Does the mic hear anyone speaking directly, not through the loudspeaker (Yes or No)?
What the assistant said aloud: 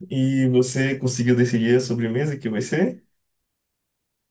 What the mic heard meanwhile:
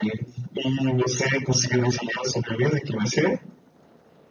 No